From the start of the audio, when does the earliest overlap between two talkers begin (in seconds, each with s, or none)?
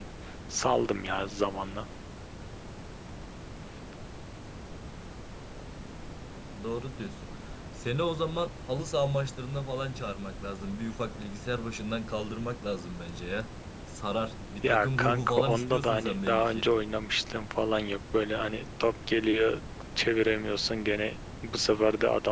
14.6 s